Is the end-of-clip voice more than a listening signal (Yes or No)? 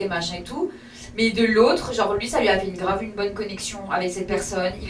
No